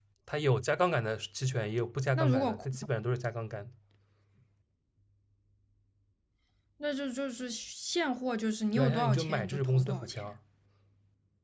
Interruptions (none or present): present